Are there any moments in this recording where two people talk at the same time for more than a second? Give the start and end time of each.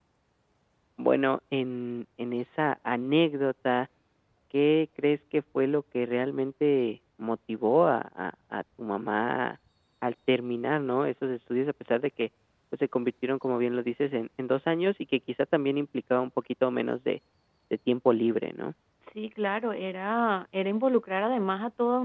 none

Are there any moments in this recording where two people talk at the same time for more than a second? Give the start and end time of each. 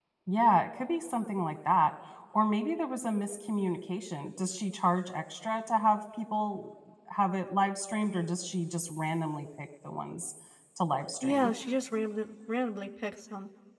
none

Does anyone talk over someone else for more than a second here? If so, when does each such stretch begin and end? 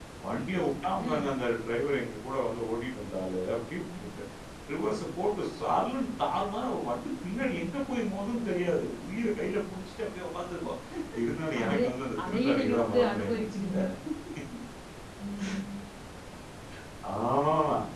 12.3-13.7

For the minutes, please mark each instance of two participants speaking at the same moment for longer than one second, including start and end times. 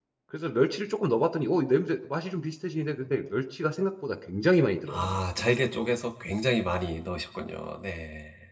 none

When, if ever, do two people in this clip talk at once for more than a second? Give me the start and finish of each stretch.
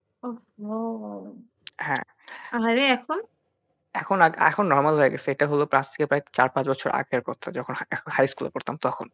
none

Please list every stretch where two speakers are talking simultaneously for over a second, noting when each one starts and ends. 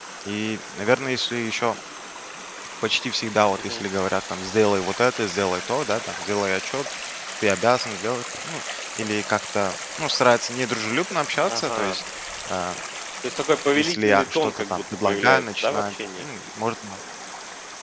13.7-16.2

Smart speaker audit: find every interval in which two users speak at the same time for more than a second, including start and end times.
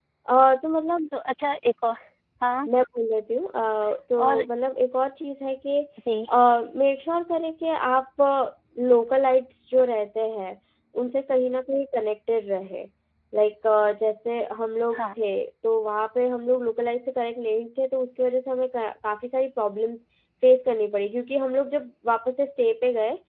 none

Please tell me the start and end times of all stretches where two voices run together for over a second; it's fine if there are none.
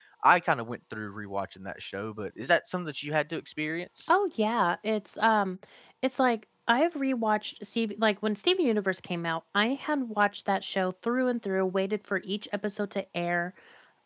none

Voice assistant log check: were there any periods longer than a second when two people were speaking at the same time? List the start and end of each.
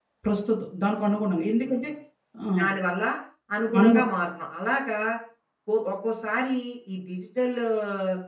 none

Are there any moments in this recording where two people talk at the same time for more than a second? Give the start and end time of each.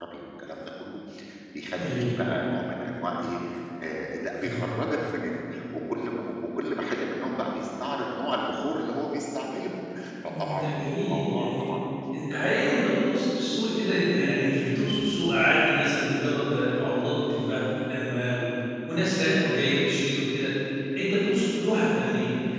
10.4-11.6

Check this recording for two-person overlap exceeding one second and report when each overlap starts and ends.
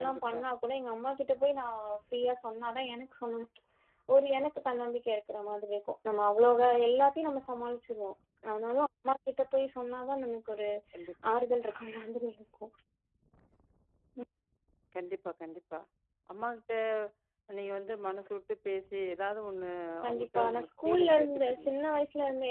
20.0-21.7

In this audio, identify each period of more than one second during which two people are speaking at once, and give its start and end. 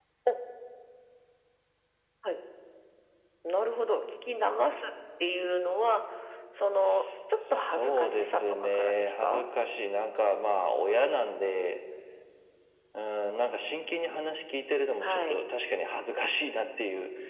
7.5-9.4

